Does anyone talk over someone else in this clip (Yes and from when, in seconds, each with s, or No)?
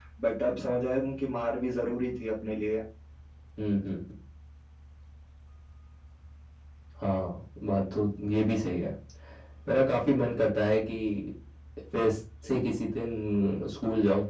No